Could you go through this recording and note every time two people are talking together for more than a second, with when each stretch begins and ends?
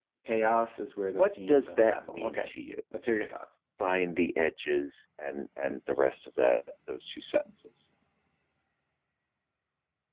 1.1-2.5

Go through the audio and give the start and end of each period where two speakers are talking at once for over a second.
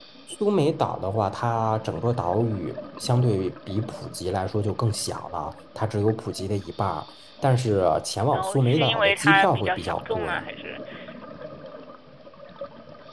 8.3-10.3

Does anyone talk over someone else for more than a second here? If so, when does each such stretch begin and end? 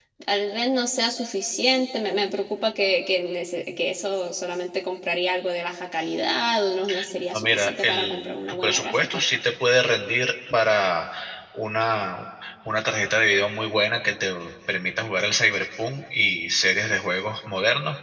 7.3-9.2

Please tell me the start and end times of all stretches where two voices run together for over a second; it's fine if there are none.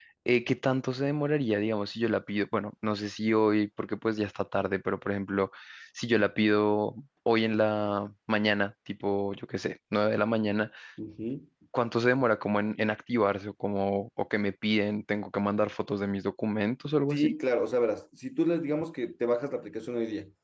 none

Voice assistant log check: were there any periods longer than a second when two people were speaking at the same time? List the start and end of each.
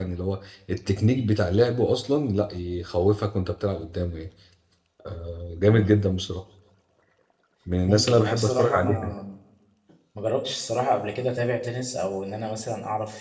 7.8-9.1

